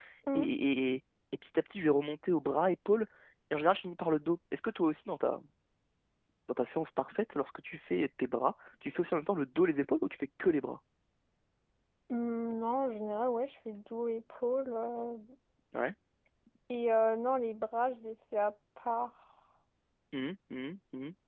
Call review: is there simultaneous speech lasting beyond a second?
No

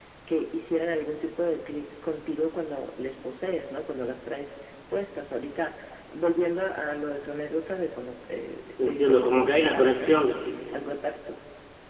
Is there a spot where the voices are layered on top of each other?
Yes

